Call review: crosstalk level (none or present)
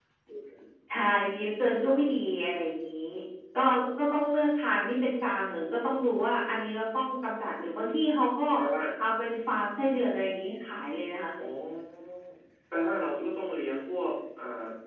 none